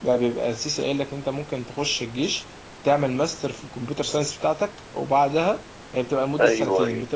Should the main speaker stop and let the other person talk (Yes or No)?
No